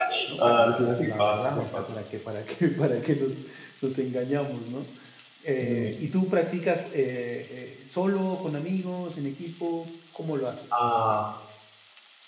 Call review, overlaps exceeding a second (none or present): present